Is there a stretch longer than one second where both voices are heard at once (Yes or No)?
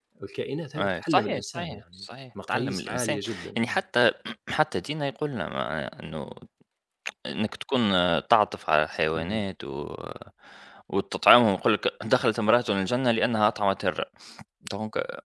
Yes